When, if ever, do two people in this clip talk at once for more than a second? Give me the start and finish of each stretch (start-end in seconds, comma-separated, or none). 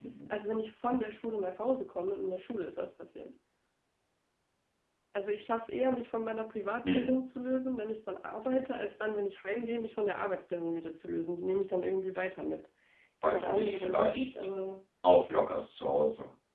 13.2-14.5